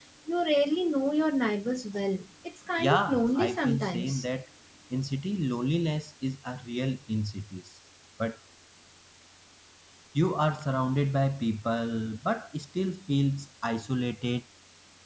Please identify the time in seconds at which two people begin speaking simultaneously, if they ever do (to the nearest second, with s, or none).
3 s